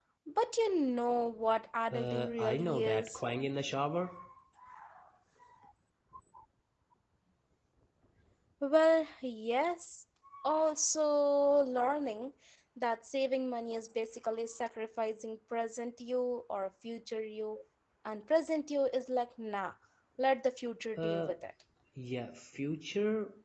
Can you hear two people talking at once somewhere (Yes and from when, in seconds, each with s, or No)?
Yes, from 1.9 s